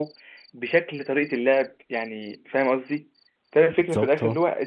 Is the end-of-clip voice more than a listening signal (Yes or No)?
No